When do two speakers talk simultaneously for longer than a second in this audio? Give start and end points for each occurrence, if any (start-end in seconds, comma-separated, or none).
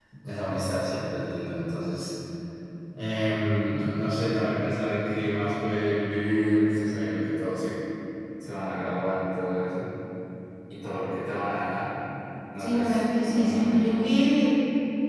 12.6-14.0